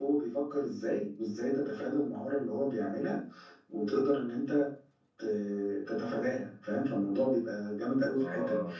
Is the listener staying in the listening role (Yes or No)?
Yes